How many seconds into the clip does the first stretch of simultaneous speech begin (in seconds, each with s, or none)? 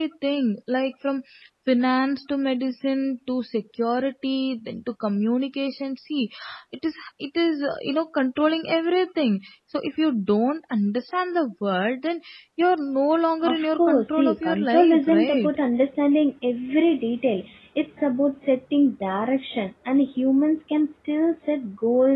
13.4 s